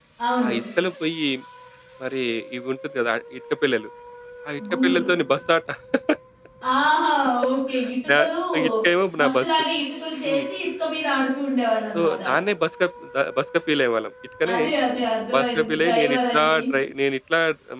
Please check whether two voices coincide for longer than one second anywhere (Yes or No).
Yes